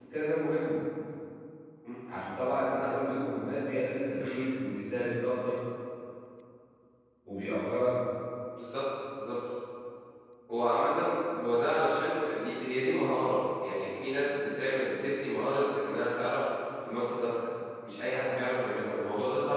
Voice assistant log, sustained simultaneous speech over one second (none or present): none